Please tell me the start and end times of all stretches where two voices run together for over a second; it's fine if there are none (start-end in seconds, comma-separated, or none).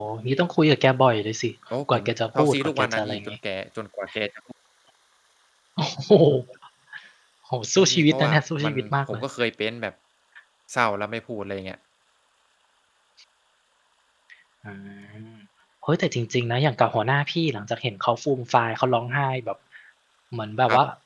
1.9-3.4, 7.8-9.2